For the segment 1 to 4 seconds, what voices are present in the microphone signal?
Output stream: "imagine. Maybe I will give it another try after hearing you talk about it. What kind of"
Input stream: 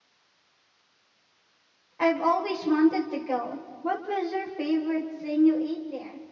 user only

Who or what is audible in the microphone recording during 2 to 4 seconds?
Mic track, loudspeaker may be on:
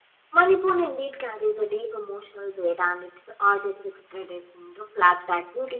echo only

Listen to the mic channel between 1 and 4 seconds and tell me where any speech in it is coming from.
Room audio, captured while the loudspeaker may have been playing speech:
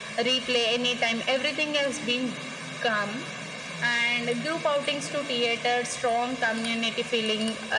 echo only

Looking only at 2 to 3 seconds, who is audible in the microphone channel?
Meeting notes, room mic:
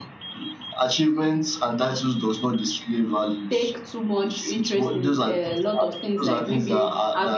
echo only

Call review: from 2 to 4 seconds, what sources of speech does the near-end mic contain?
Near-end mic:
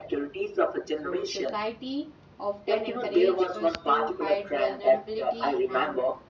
both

